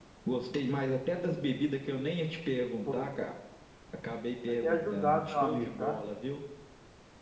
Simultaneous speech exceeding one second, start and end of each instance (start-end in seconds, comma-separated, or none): 4.6-6.0